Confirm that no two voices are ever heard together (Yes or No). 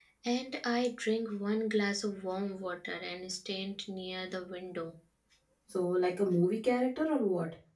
Yes